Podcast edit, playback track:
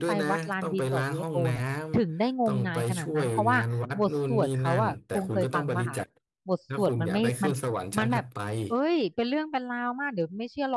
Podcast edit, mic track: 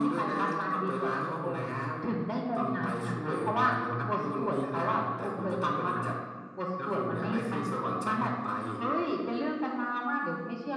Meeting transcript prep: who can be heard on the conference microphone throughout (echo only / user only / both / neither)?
echo only